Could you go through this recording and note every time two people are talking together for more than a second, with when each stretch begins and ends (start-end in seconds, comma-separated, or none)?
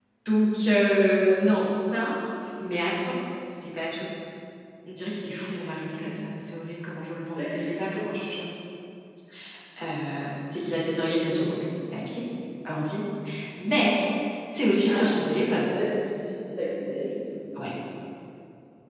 none